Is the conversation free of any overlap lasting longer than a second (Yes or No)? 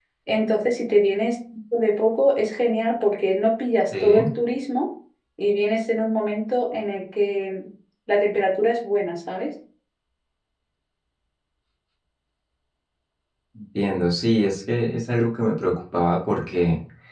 Yes